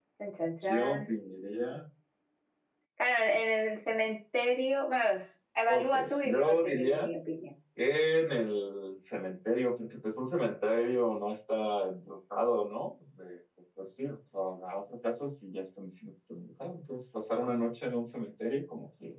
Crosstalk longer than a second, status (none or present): present